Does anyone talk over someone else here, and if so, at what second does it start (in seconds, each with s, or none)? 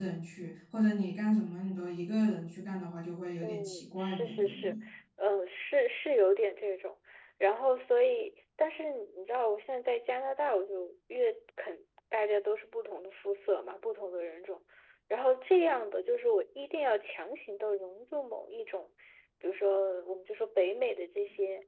3.4 s